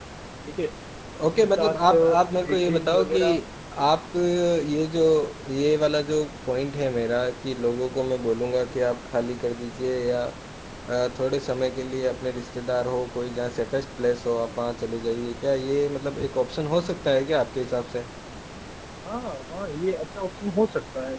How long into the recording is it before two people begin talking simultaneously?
1.4 s

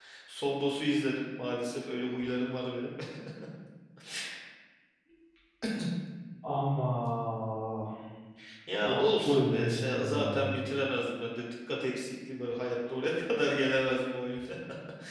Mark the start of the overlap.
8.8 s

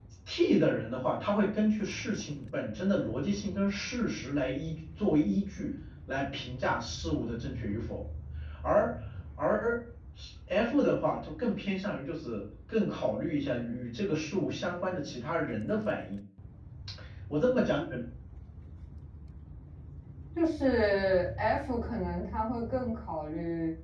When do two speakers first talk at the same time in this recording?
none

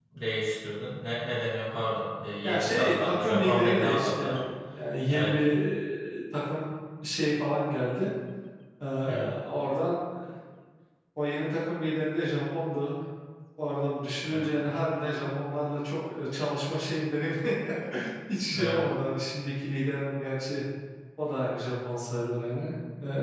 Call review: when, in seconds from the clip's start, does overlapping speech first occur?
2.4 s

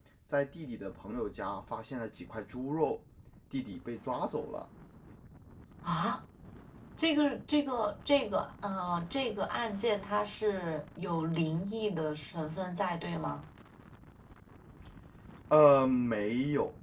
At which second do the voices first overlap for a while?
none

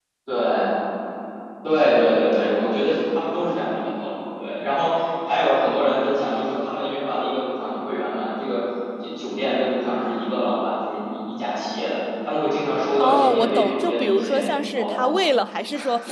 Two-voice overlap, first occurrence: 13.0 s

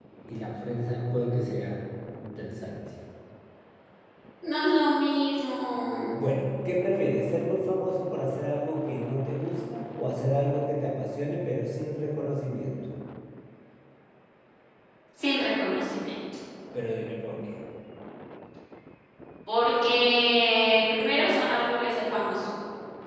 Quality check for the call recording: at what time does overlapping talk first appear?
none

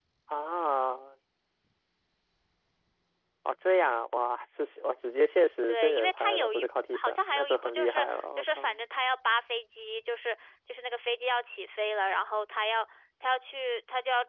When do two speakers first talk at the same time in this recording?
5.7 s

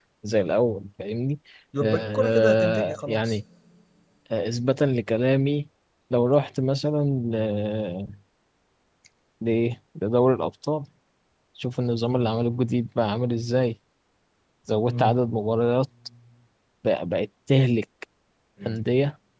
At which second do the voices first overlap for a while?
1.8 s

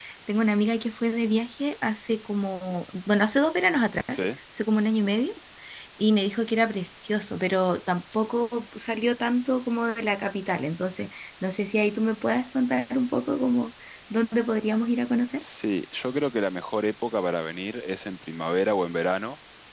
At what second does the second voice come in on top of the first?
none

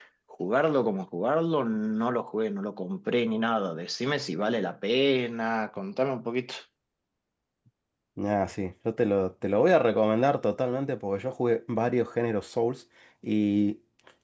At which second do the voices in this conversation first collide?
none

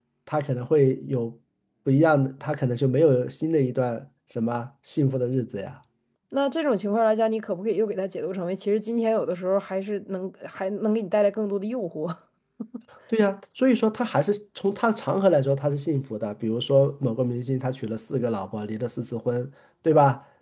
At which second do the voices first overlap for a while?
none

